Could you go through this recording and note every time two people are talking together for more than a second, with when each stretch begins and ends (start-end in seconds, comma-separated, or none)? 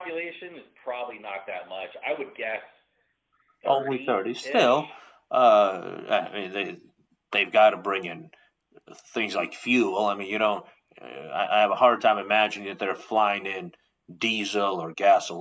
3.7-4.9